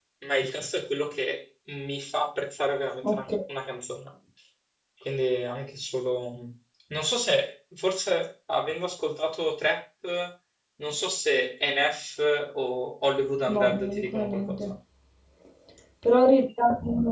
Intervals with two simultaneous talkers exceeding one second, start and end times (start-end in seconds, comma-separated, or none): 13.5-14.7